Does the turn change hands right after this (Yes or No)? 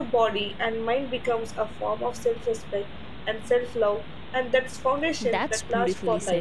Yes